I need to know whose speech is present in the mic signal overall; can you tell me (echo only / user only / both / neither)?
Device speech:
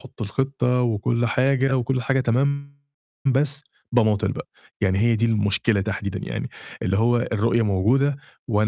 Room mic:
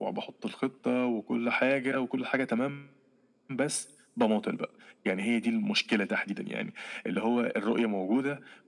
echo only